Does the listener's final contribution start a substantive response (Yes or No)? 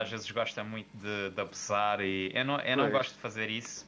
No